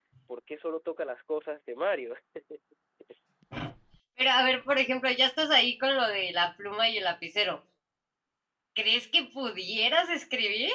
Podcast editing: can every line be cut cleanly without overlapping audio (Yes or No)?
Yes